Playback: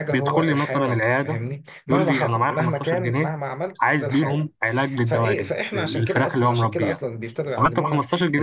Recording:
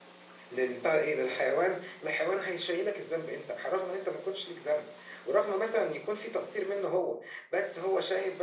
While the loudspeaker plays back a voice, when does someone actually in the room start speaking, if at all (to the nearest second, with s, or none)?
1 s